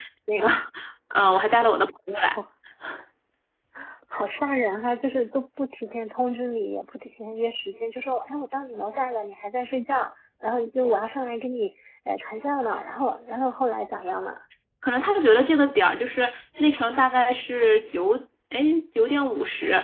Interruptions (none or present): none